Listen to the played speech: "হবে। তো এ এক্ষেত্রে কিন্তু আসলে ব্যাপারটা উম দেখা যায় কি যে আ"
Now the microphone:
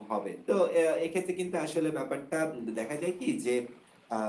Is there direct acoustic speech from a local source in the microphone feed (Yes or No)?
No